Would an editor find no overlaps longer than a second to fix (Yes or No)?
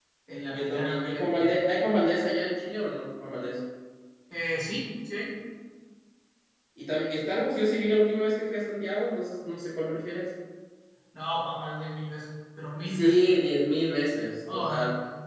No